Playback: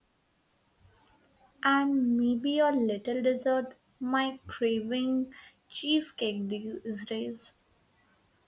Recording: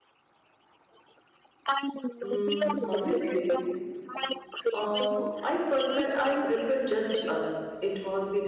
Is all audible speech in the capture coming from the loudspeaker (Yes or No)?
No